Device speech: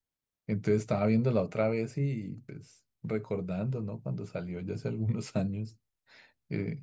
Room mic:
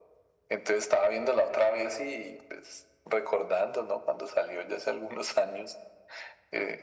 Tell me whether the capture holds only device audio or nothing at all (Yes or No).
Yes